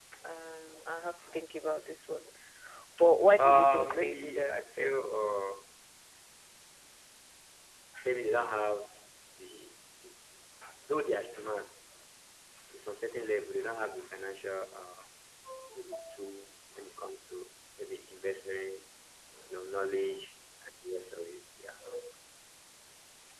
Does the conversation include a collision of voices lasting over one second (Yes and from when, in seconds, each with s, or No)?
Yes, from 3.4 s